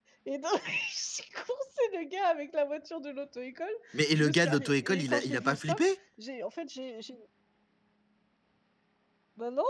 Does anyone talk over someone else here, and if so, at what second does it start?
4.2 s

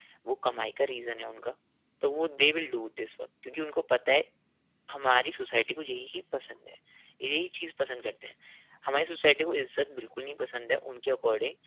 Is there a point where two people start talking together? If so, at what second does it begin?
none

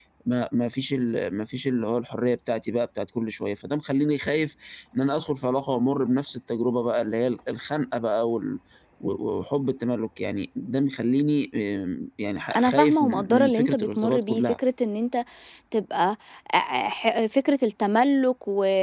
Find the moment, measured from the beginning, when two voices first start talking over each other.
12.5 s

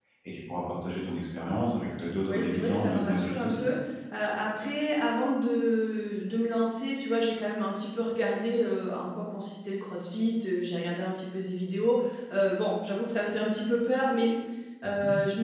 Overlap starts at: 2.3 s

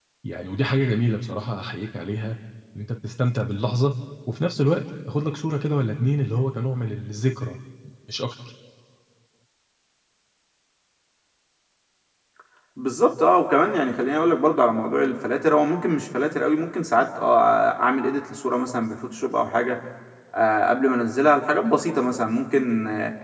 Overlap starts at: none

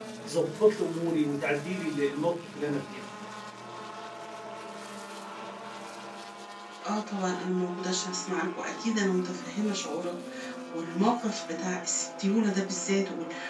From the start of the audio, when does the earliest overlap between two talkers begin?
none

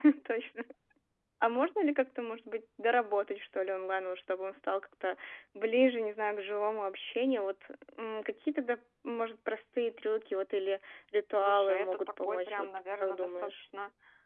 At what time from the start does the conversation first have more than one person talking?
11.4 s

